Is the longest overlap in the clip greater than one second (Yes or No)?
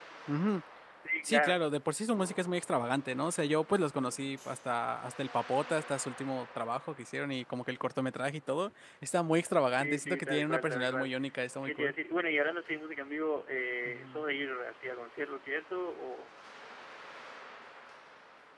Yes